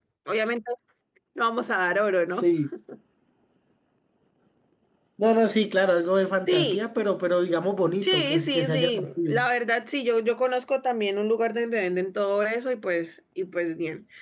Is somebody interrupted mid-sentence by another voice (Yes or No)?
Yes